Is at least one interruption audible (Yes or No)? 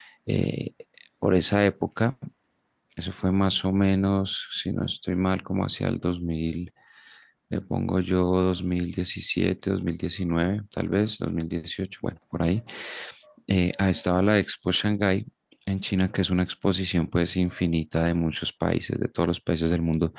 No